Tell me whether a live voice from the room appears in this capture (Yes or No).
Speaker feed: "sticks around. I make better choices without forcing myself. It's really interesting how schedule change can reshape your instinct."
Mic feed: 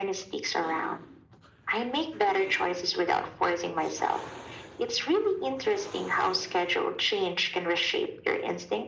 No